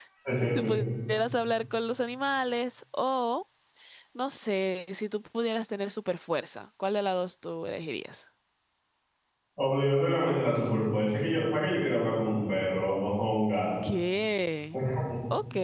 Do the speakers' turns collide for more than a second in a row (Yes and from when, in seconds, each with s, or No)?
No